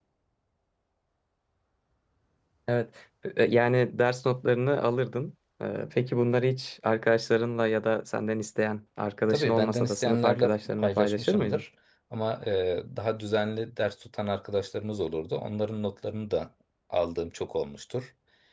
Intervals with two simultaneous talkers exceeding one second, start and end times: 9.3-11.6

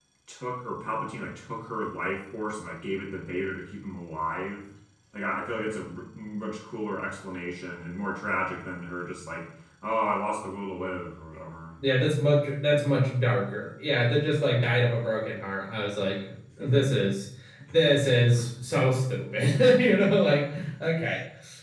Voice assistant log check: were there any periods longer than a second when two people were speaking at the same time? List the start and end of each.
none

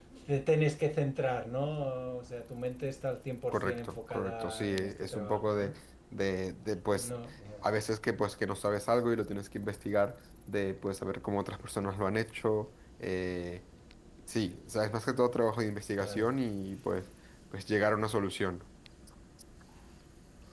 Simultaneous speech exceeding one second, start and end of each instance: 3.5-5.7

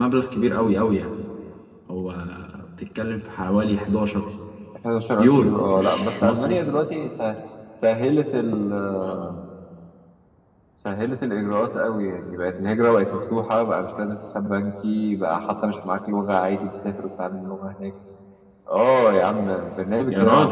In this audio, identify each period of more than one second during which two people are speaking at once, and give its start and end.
5.2-6.6

